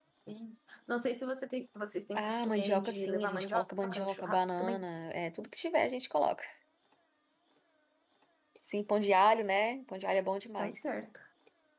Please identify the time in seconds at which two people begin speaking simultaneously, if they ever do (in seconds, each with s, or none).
2.1 s